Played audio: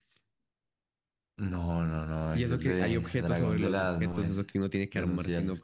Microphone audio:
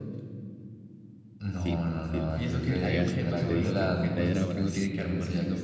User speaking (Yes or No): Yes